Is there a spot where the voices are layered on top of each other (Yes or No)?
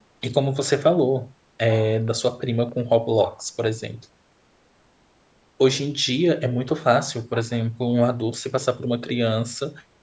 No